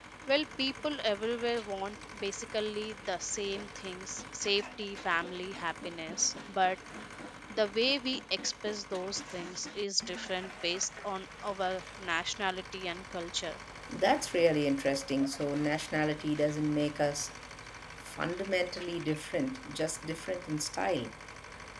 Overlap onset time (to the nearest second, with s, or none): none